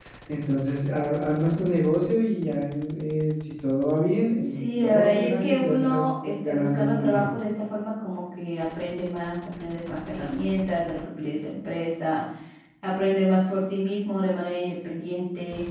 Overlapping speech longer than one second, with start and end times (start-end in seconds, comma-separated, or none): 4.4-7.4